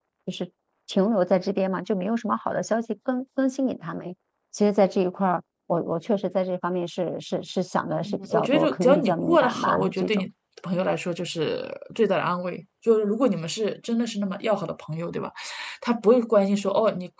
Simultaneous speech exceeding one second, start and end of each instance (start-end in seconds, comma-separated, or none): 8.0-10.2